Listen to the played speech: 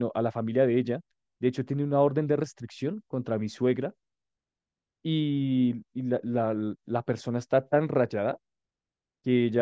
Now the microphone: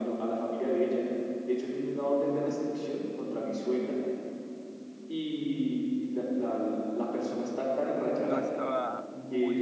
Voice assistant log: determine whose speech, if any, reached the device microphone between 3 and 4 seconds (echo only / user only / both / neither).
echo only